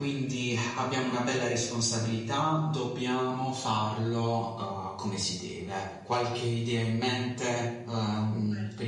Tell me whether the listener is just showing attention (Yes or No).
Yes